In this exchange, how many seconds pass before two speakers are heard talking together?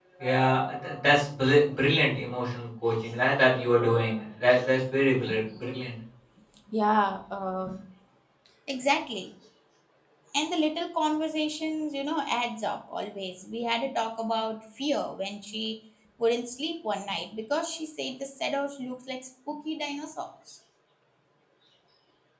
none

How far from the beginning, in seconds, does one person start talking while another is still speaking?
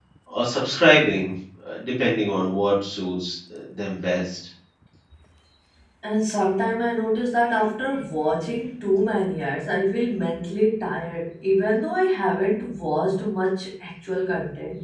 none

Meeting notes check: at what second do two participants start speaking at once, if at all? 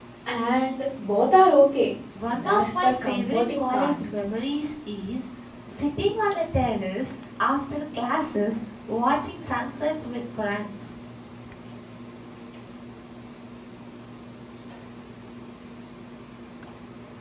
2 s

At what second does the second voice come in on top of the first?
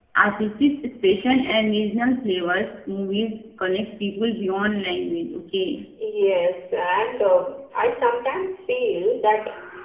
none

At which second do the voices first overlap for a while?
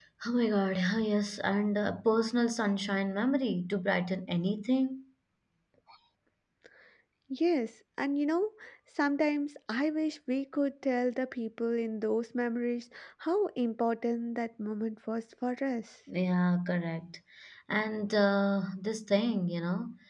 none

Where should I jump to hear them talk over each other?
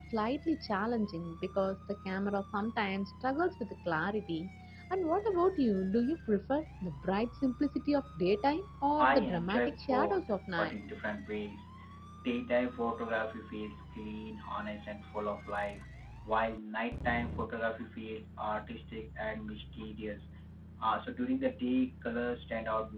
9 s

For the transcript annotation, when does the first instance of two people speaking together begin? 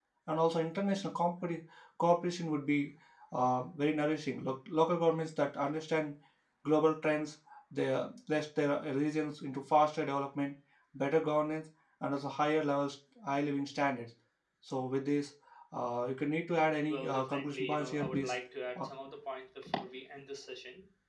17 s

